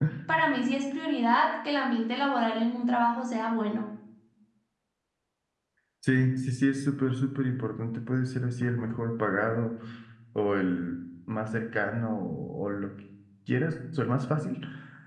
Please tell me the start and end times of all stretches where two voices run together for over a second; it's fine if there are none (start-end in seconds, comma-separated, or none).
none